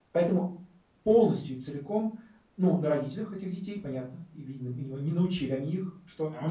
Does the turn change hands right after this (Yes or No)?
No